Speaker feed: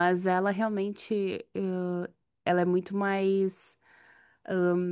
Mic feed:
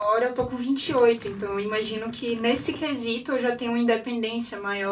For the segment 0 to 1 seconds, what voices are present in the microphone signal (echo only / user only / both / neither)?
user only